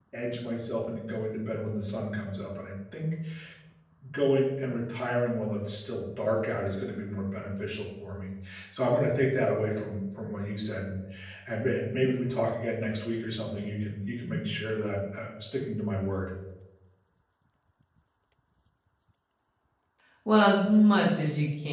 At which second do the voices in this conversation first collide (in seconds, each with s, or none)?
none